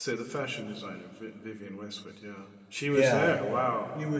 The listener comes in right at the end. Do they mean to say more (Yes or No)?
Yes